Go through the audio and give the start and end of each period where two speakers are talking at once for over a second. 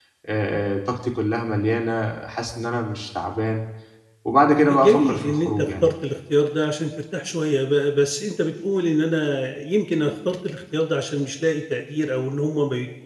4.7-5.9

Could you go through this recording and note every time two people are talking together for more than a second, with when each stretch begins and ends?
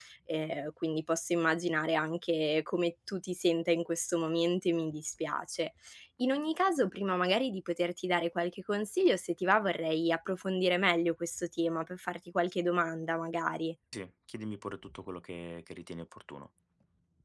none

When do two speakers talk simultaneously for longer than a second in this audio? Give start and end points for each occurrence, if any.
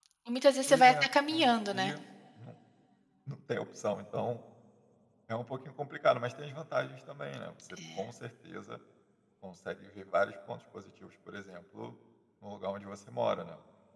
0.7-1.9

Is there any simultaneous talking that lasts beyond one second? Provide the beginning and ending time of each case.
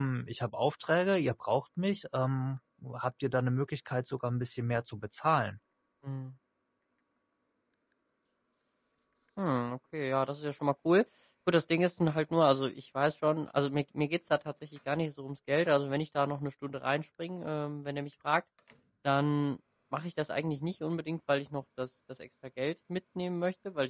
none

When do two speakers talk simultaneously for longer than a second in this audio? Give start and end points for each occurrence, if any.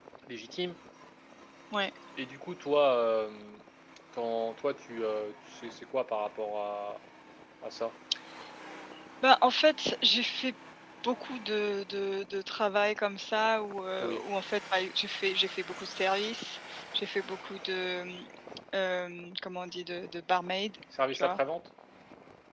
none

